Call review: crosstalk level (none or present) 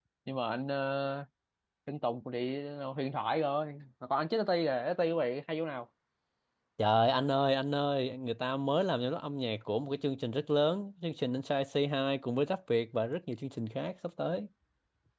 none